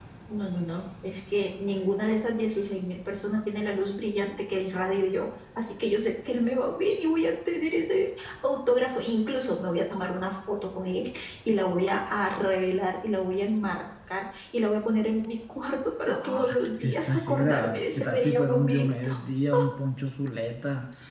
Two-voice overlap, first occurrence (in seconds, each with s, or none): 16.1 s